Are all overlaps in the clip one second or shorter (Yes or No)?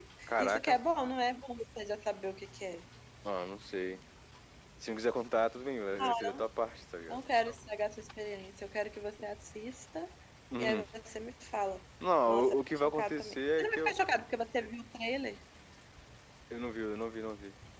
No